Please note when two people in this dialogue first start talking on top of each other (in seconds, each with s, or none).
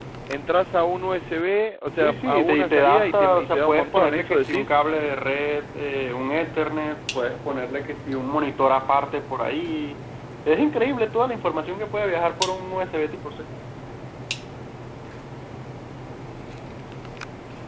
1.9 s